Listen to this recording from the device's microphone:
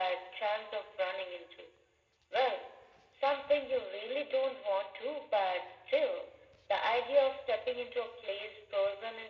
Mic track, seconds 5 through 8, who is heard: echo only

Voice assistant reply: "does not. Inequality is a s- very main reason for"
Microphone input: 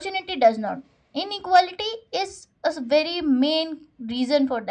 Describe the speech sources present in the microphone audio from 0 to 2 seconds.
echo only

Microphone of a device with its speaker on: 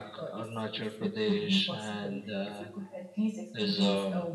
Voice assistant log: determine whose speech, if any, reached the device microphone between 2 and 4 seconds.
echo only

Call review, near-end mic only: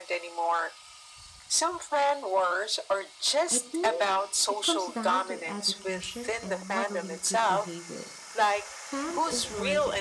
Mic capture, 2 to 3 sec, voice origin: echo only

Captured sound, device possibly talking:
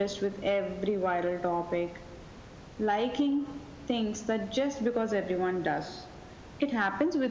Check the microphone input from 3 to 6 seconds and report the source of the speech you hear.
echo only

